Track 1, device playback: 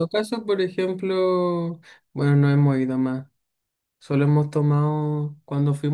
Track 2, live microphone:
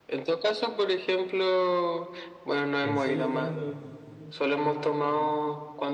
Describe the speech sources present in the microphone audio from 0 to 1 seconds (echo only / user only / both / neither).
echo only